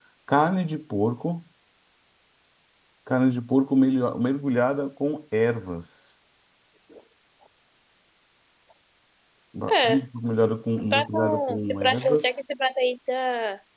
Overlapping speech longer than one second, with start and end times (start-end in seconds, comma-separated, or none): 10.9-12.3